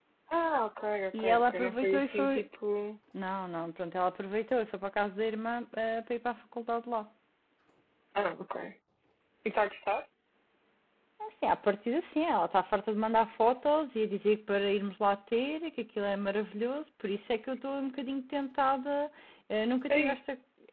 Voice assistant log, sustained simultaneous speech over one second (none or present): present